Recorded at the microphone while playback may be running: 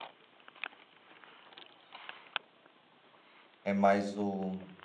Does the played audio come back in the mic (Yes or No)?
No